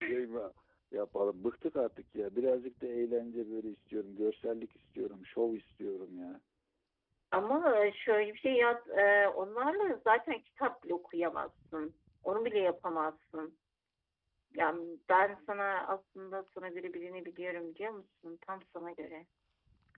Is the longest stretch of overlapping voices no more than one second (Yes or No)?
Yes